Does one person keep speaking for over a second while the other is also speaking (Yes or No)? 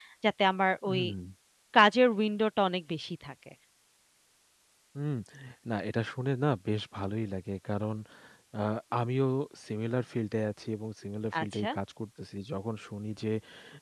No